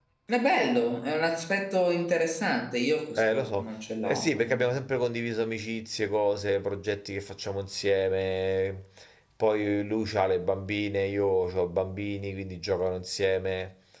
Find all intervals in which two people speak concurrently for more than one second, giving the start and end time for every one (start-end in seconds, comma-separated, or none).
3.2-4.9